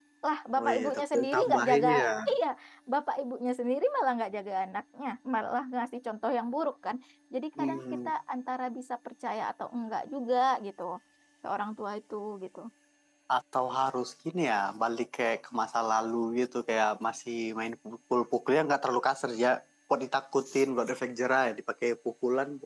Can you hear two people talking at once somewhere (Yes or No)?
Yes